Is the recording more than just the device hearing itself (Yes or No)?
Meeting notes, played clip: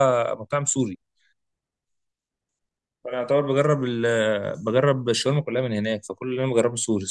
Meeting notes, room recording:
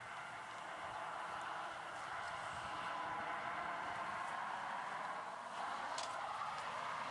No